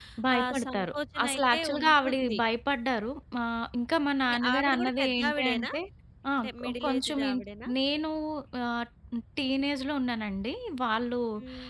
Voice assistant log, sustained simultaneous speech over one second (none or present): present